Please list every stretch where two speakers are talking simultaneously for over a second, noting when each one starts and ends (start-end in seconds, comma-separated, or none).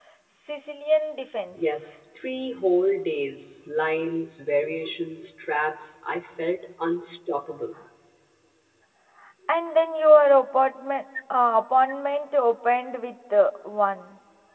none